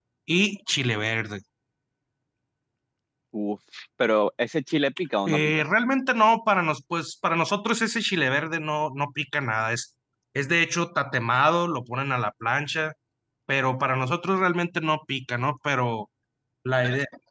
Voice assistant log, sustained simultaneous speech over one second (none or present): none